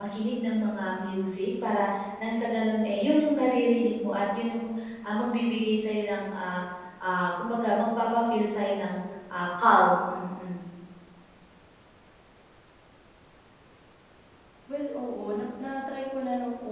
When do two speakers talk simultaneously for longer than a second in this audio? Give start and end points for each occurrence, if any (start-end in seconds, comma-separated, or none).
none